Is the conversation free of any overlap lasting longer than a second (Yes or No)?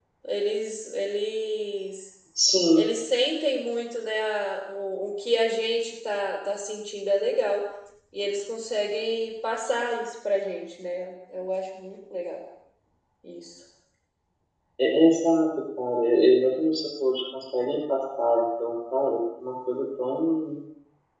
Yes